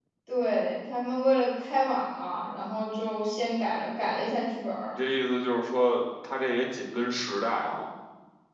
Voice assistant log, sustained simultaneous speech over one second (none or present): none